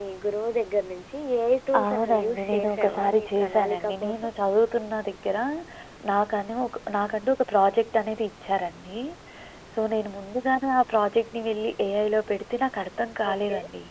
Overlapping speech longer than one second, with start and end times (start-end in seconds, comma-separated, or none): 1.8-4.2